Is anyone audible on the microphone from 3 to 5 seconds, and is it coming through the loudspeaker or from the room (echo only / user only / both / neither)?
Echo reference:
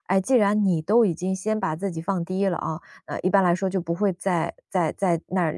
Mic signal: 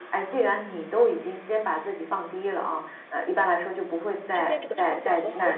both